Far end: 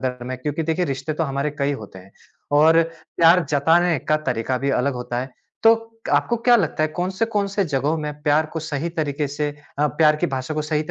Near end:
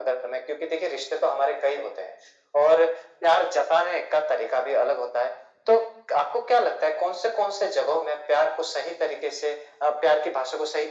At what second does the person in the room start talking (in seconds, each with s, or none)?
none